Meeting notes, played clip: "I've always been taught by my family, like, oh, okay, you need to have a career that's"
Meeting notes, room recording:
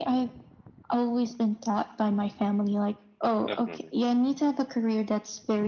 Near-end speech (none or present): present